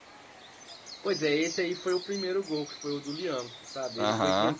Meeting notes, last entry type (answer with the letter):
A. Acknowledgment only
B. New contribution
A